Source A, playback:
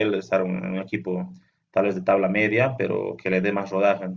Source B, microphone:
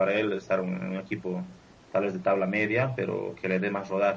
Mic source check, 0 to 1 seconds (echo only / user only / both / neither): echo only